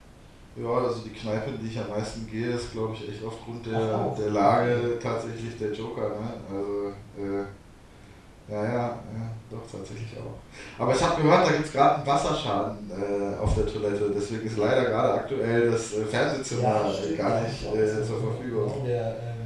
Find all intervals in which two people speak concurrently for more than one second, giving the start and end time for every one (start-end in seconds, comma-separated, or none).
3.7-4.9, 16.5-18.7